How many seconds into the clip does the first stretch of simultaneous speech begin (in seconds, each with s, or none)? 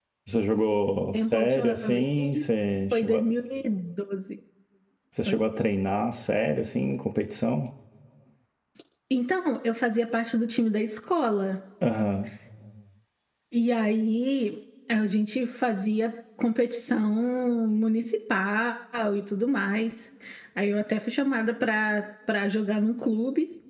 1.1 s